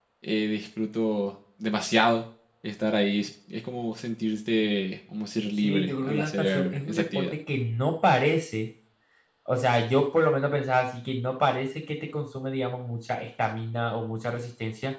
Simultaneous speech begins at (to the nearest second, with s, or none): 6 s